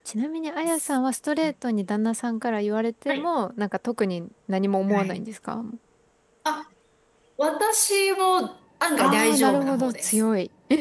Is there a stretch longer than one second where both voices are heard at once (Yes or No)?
Yes